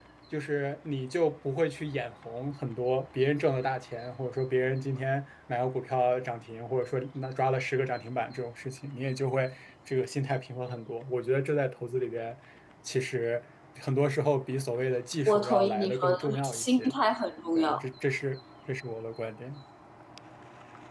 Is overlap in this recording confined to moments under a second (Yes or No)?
No